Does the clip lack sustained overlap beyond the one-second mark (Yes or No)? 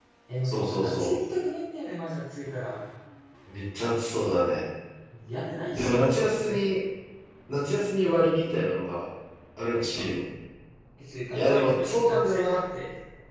No